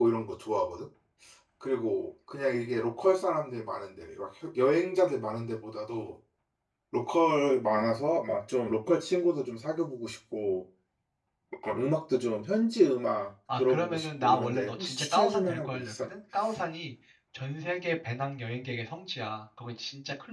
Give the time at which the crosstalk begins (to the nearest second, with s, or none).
13 s